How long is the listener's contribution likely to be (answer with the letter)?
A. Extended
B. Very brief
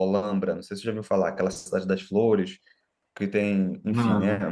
B